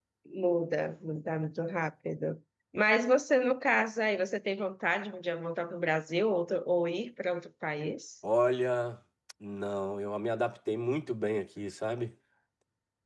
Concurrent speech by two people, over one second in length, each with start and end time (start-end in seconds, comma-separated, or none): none